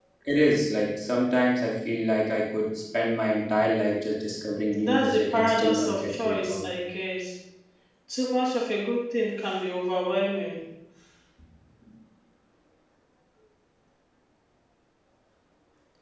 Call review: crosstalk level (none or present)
present